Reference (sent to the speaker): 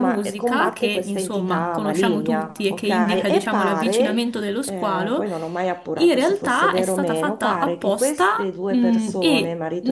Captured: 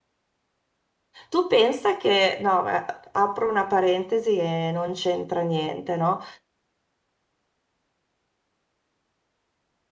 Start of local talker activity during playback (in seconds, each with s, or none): 1.3 s